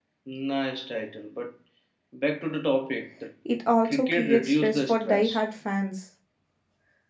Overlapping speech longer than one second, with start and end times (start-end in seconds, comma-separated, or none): 3.8-5.4